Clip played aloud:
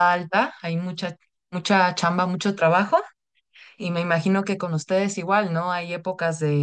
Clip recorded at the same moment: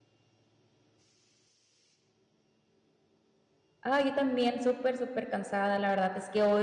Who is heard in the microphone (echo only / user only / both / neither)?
user only